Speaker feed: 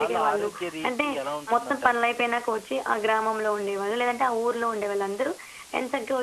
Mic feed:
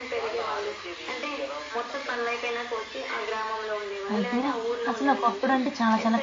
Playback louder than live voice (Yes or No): No